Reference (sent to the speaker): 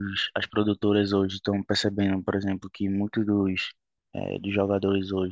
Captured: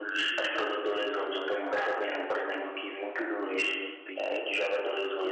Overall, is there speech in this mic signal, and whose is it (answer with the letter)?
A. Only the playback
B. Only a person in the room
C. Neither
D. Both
D